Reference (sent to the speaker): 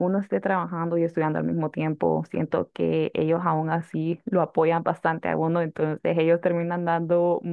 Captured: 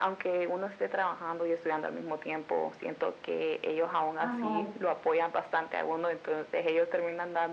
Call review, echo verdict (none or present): present